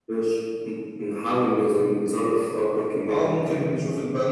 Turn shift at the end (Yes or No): Yes